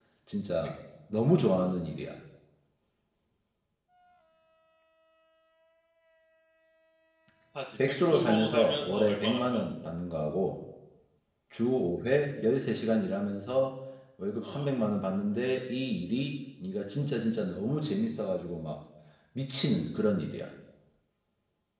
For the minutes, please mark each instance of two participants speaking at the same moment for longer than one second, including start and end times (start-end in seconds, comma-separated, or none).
7.9-9.6